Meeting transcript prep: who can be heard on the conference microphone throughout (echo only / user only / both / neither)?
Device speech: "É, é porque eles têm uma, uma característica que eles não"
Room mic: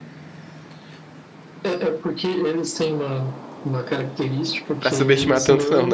both